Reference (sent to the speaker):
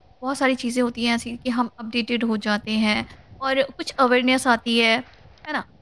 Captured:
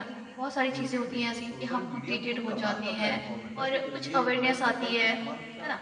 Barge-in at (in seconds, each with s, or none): 0.7 s